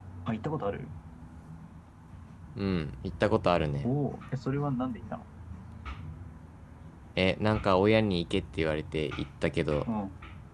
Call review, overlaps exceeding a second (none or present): none